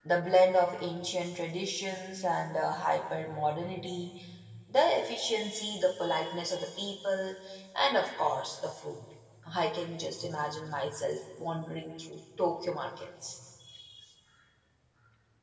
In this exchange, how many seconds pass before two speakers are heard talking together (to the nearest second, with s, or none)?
none